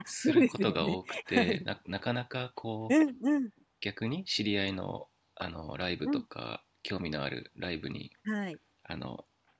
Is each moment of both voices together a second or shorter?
No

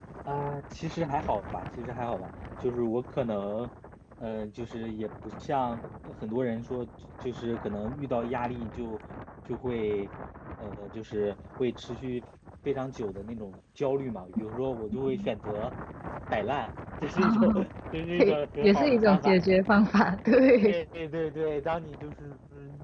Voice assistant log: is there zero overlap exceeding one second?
No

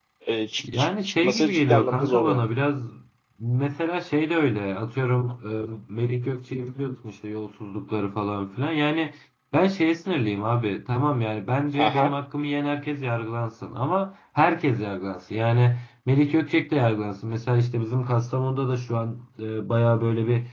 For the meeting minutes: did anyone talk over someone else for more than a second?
Yes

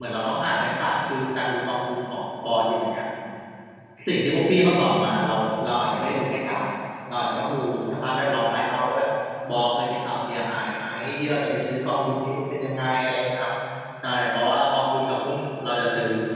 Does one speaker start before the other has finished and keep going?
No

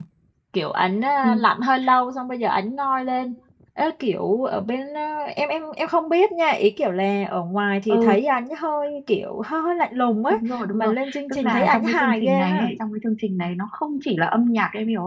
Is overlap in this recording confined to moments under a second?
No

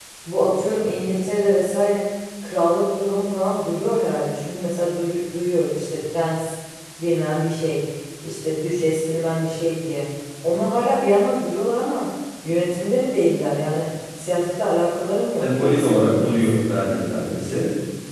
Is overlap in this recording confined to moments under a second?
No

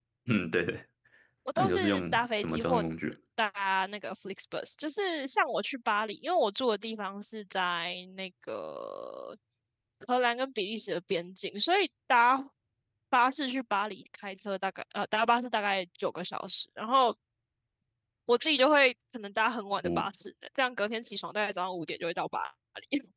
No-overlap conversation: No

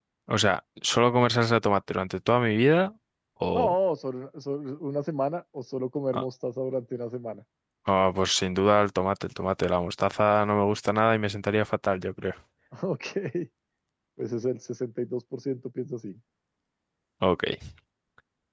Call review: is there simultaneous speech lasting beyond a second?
No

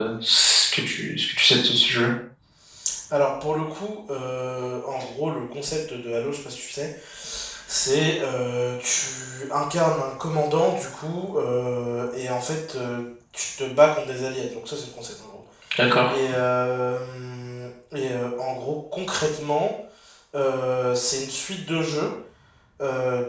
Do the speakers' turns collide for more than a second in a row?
No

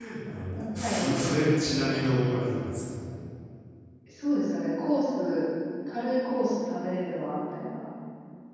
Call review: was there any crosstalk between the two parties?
Yes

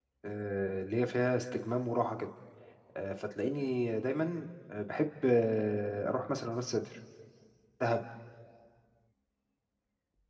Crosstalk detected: No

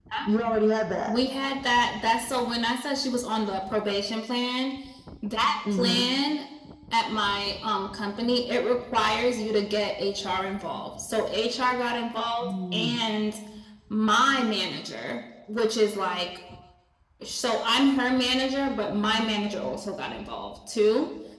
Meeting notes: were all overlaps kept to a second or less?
Yes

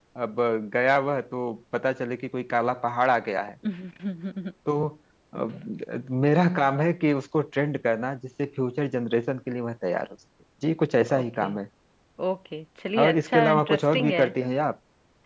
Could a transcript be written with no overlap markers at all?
No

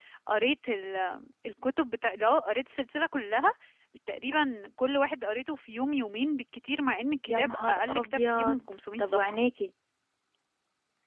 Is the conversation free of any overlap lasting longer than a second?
No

